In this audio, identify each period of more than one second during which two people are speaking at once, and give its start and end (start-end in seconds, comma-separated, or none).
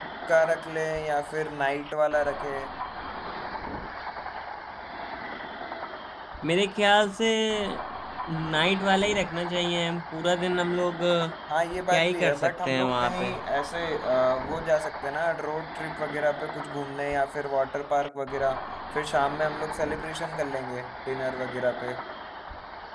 11.9-13.4